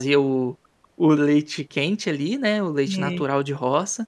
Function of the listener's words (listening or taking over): listening